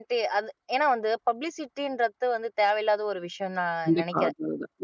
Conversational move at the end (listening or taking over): taking over